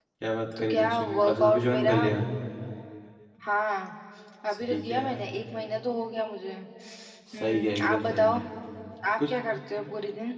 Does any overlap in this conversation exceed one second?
Yes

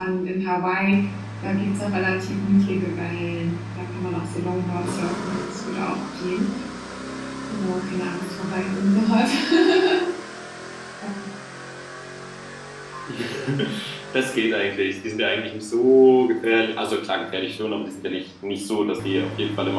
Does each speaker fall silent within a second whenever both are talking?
Yes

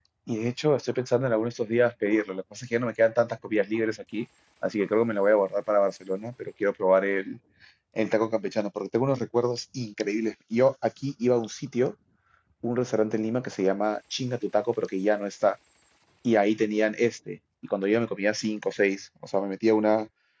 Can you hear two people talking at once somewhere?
No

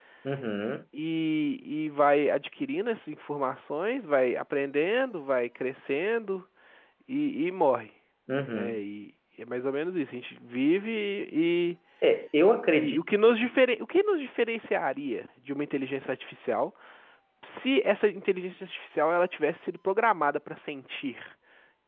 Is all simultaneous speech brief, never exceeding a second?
Yes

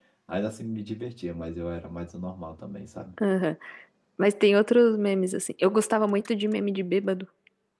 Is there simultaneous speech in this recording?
No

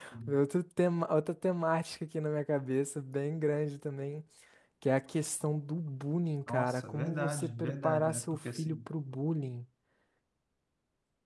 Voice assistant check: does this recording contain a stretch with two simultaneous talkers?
Yes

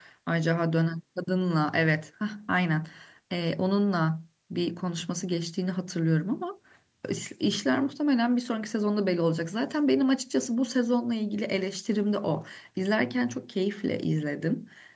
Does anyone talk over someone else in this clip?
No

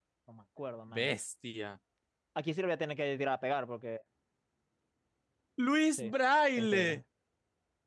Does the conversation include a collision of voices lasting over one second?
No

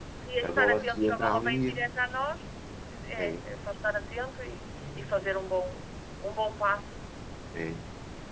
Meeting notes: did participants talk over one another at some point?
Yes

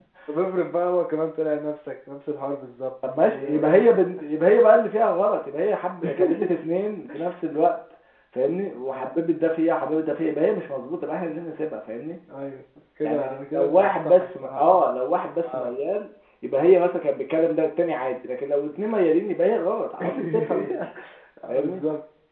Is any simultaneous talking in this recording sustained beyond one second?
Yes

